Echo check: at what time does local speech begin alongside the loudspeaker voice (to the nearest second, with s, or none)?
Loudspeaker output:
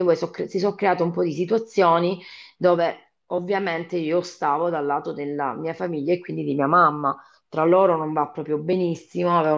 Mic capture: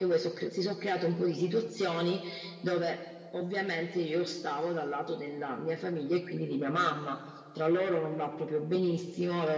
none